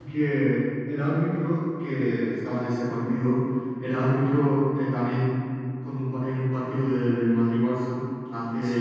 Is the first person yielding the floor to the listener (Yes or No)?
No